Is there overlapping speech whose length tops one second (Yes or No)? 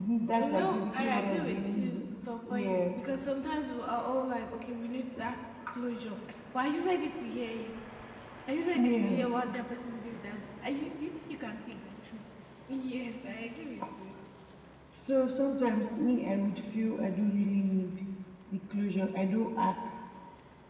Yes